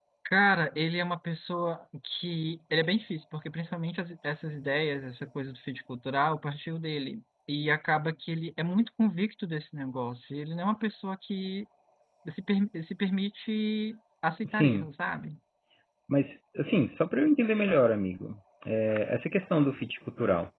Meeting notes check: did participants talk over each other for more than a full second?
No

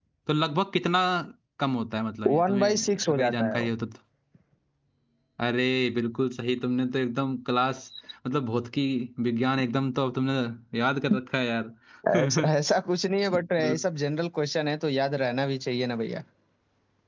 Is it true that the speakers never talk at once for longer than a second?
No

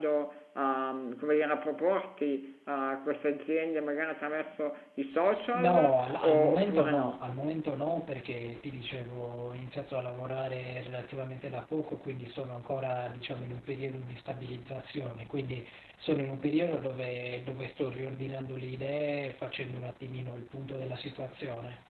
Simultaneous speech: Yes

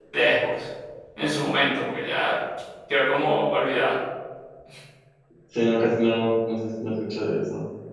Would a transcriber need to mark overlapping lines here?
No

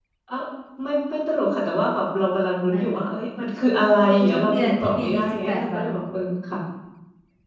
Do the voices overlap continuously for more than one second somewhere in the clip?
Yes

